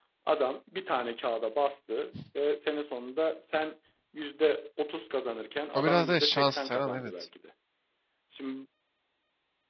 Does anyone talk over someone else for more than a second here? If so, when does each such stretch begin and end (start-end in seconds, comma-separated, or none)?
5.8-7.1